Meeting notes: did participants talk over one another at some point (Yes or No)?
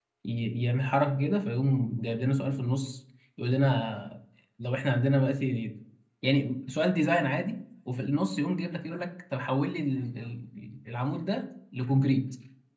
No